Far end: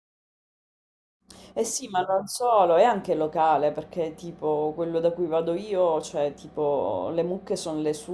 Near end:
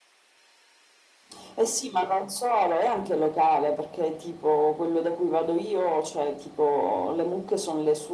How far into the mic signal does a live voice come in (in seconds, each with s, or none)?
none